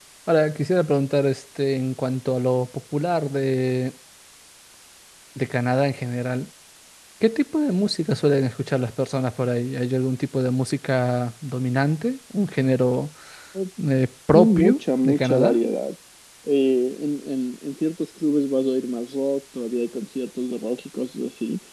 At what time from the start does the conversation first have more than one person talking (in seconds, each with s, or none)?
14.3 s